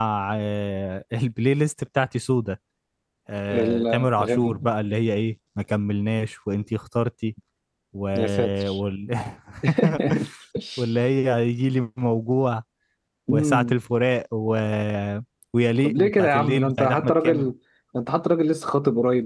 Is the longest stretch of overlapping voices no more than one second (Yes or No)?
No